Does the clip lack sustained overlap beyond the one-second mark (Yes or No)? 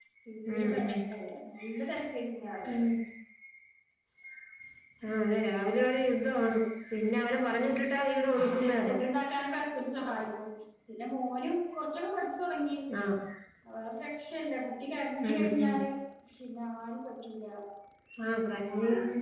Yes